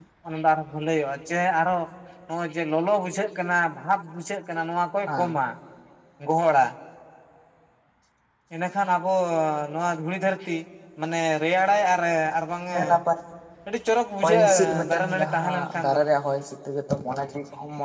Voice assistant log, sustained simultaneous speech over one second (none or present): present